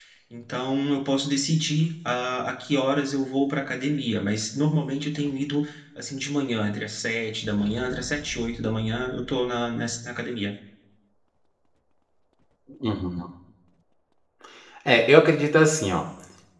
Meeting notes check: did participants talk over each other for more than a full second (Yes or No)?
No